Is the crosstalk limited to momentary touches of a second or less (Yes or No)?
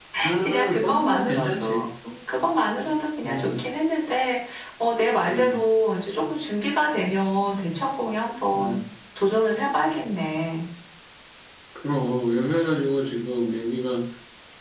No